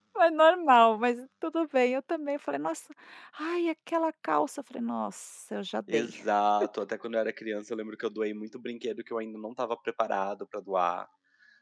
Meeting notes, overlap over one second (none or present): none